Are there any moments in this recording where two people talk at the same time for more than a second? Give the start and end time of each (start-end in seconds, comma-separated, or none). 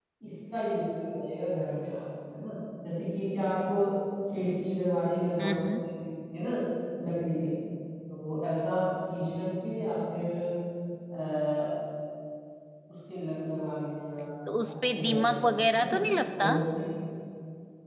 14.7-16.0